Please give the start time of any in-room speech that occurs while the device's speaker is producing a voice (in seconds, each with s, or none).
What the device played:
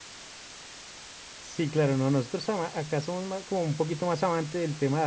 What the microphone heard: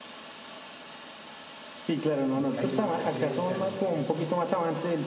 2.3 s